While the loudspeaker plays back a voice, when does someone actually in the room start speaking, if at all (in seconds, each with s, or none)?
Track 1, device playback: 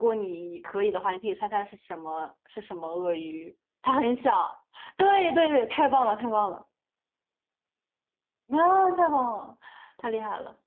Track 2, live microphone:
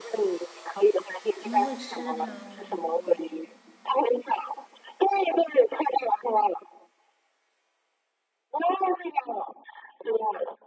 1.4 s